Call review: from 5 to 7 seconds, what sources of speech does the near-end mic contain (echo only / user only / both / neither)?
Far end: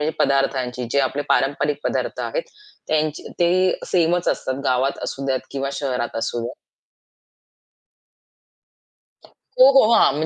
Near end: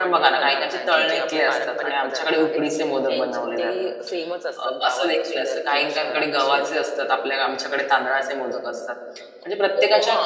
both